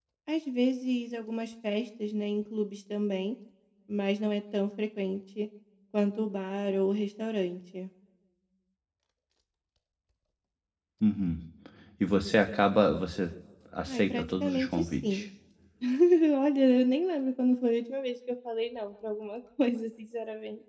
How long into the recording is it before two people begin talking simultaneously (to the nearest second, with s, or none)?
14 s